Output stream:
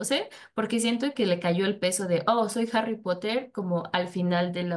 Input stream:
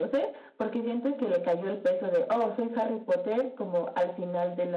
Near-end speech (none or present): none